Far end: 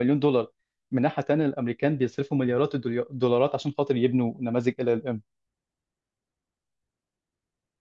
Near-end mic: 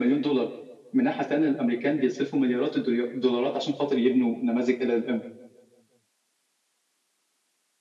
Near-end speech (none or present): none